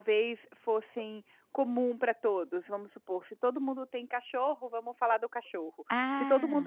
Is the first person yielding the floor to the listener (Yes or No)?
No